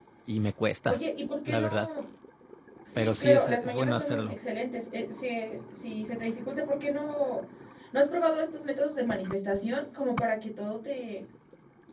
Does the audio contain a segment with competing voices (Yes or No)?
Yes